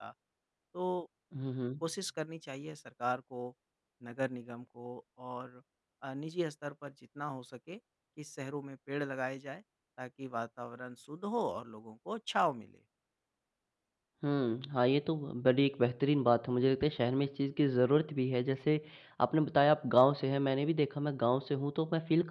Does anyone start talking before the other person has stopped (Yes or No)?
No